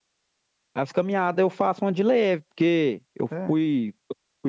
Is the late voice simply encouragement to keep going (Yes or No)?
Yes